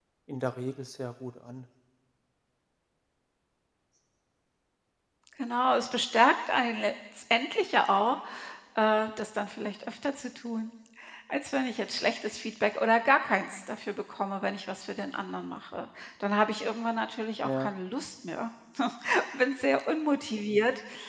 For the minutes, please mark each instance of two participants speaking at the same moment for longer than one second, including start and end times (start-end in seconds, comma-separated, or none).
none